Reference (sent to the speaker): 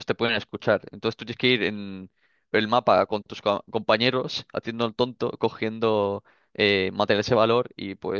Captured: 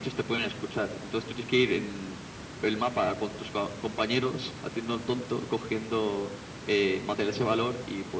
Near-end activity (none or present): none